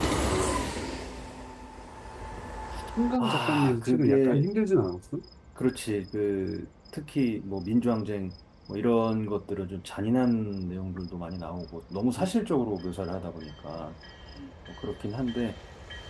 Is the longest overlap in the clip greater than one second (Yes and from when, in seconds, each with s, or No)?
Yes, from 3.2 s